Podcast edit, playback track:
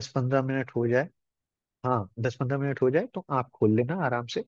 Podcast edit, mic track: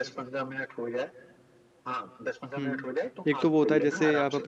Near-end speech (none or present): present